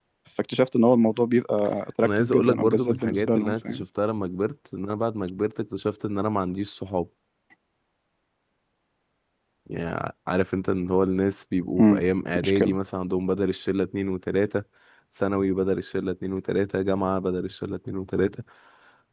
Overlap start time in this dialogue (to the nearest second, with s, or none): 2 s